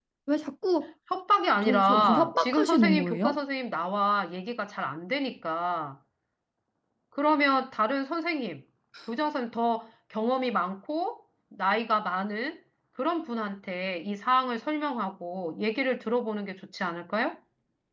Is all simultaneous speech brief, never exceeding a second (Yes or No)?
No